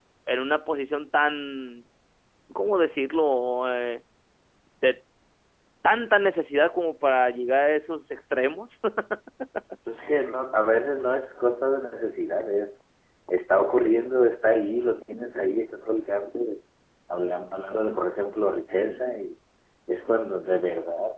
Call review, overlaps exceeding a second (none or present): none